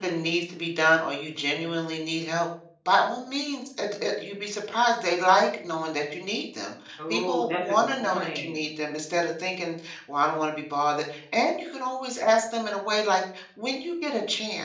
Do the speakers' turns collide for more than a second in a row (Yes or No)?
Yes